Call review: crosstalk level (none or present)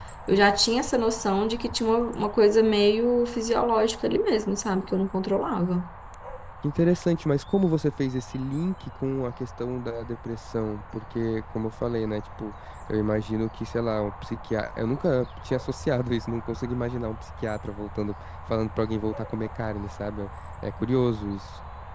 none